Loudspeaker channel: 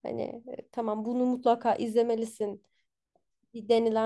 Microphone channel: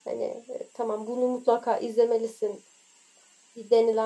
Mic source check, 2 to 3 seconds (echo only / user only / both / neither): echo only